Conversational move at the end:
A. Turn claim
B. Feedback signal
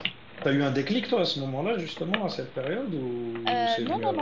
A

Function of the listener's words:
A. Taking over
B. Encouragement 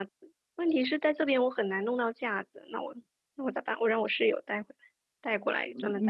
A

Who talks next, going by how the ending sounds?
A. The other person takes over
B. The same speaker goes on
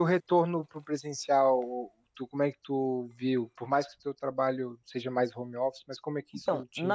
A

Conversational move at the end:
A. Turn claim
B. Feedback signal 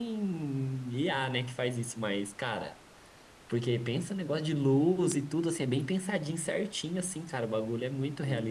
A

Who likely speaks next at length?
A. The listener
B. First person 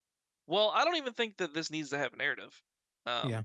B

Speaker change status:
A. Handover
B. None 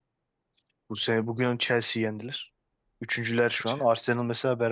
B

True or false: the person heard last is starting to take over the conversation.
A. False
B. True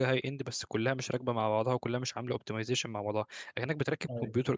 A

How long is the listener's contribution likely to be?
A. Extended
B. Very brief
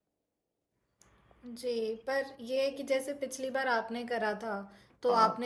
B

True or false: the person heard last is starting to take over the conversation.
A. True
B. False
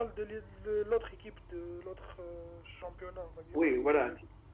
A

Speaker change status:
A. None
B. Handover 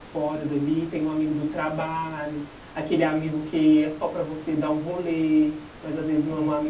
A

